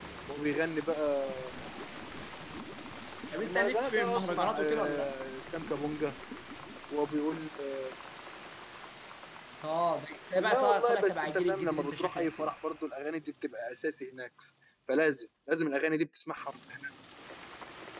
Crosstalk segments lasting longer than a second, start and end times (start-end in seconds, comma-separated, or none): 3.4-5.1, 10.4-12.5